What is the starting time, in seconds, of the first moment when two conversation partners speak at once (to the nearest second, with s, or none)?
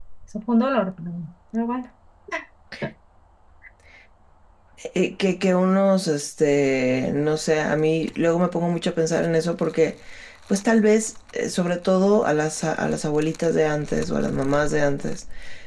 none